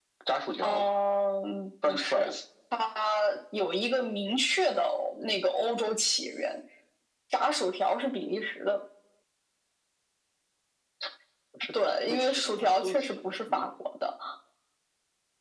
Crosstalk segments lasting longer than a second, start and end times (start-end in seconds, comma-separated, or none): 11.9-13.7